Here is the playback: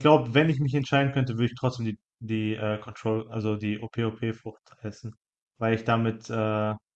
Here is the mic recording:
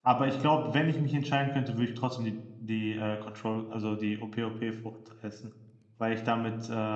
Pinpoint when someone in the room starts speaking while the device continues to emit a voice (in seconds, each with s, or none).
none